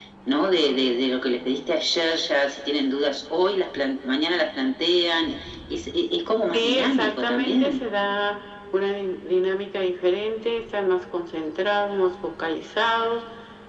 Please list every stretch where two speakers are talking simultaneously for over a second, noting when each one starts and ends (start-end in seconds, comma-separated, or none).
6.5-7.9